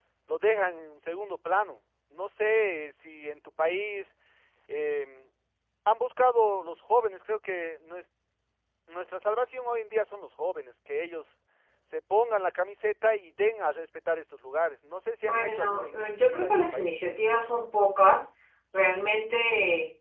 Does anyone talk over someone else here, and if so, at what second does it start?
15 s

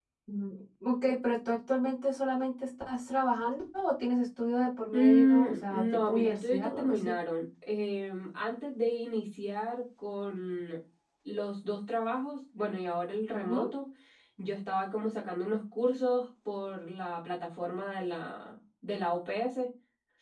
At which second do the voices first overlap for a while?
5 s

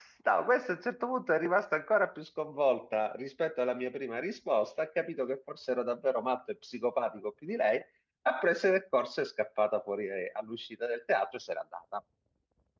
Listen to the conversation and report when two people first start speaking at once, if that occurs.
none

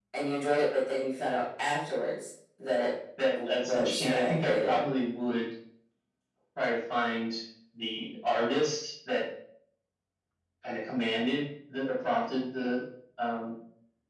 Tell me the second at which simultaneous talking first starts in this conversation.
3 s

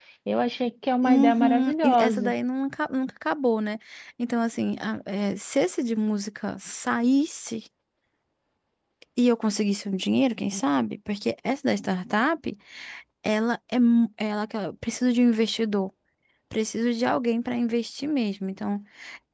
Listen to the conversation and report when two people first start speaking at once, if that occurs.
1 s

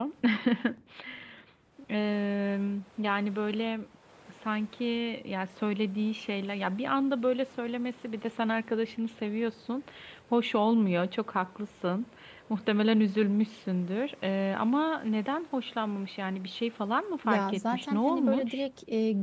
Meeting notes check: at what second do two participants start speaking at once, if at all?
17 s

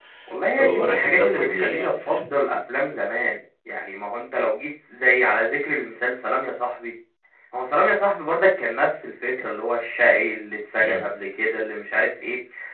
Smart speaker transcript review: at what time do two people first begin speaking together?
1 s

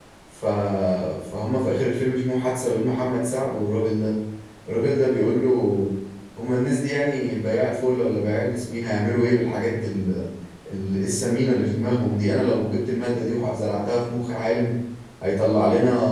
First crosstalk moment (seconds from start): none

